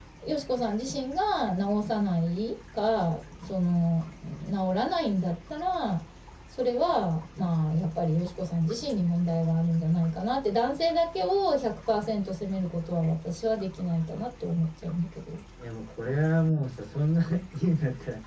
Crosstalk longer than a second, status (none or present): none